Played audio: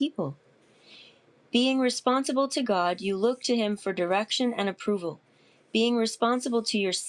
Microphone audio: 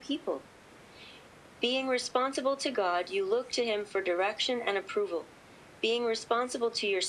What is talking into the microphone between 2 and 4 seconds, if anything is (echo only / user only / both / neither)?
echo only